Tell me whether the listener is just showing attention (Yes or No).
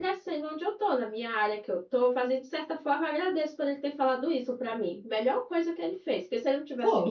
Yes